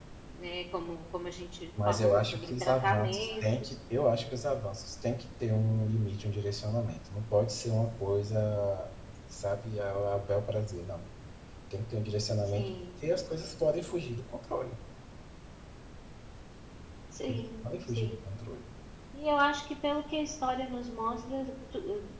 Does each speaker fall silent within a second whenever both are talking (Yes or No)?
No